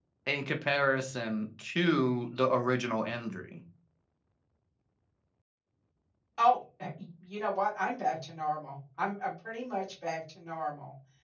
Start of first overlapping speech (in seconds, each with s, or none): none